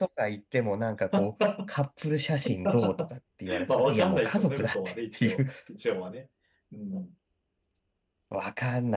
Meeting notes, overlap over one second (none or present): present